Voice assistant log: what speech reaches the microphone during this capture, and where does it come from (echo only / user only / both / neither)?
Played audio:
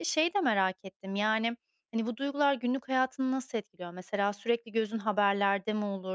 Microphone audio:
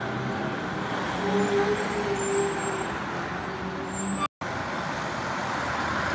neither